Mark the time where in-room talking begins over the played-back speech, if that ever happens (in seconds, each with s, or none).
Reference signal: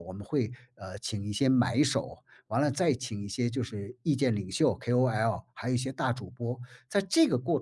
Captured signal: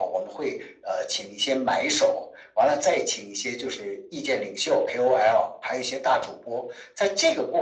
none